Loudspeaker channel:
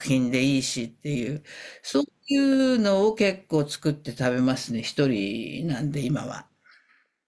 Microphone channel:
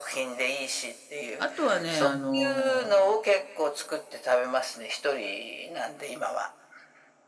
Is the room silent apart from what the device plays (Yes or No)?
No